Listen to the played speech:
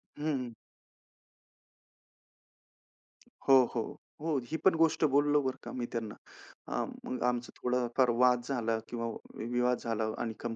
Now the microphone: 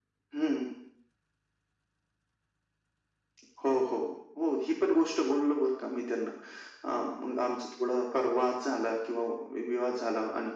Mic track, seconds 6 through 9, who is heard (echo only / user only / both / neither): echo only